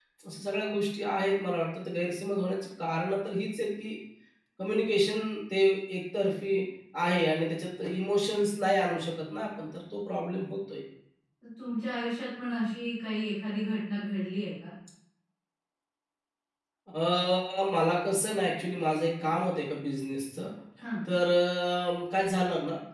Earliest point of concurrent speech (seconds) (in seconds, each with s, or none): none